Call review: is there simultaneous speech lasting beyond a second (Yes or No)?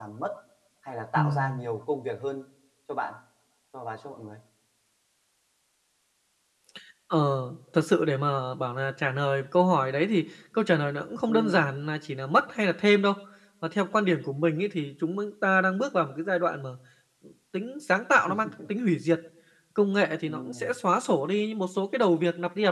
No